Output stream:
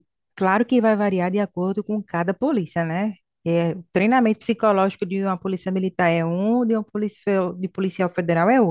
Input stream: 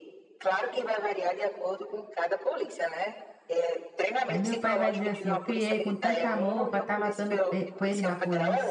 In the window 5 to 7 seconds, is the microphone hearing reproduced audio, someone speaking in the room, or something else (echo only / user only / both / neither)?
both